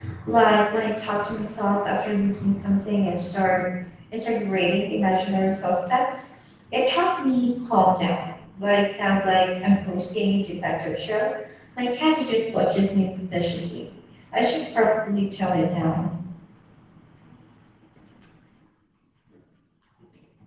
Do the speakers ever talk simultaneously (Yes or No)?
No